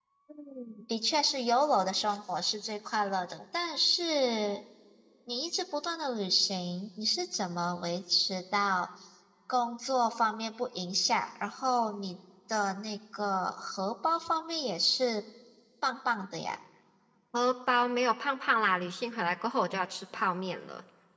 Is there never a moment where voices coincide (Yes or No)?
Yes